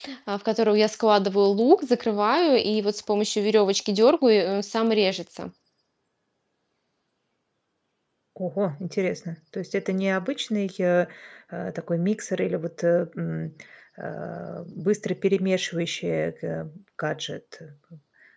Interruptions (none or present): none